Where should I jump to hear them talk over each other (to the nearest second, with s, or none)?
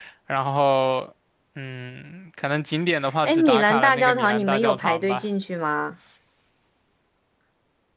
3 s